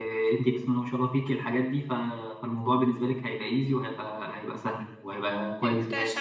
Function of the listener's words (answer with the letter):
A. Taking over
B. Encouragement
A